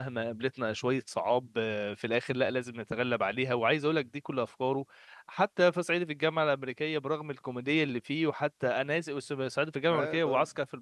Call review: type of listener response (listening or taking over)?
listening